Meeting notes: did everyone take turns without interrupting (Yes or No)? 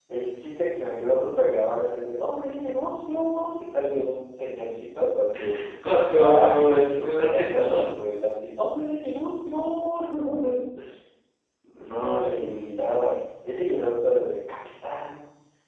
No